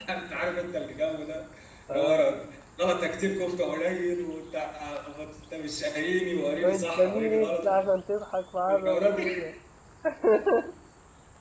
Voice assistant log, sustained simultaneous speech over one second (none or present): present